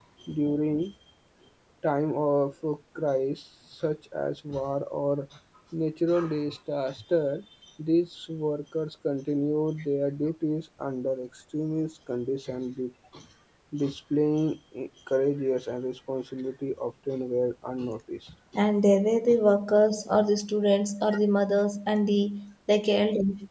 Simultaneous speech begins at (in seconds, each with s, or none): none